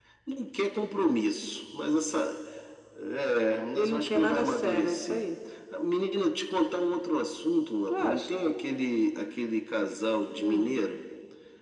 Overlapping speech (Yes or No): Yes